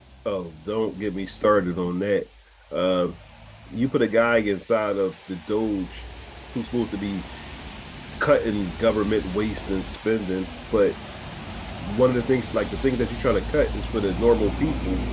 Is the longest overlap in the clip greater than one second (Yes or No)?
No